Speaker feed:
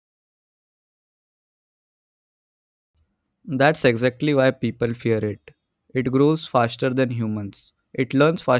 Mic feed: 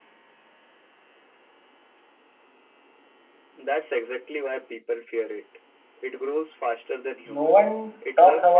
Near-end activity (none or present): present